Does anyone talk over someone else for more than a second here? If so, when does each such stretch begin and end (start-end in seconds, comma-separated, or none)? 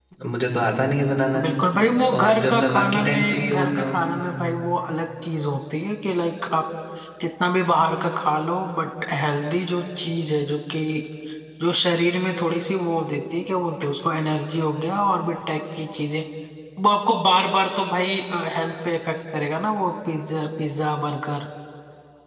2.2-4.0